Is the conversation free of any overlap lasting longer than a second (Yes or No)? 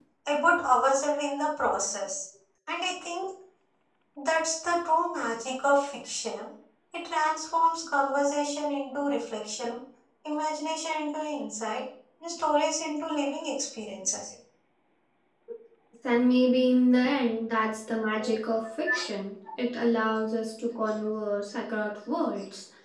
Yes